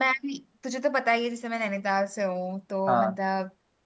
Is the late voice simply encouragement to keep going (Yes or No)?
Yes